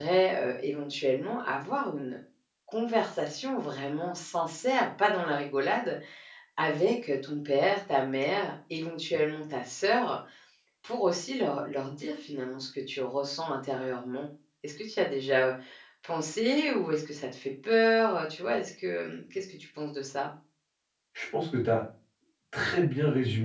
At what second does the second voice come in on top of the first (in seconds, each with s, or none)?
none